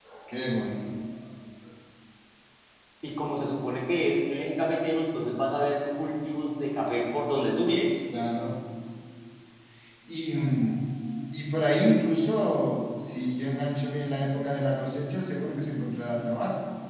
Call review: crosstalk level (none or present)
none